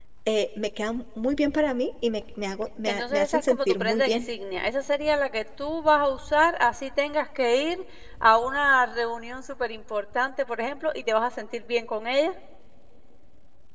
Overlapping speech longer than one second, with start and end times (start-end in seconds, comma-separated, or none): 2.8-4.2